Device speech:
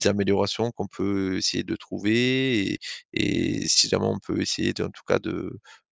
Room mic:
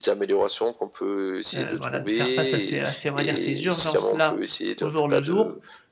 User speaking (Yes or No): Yes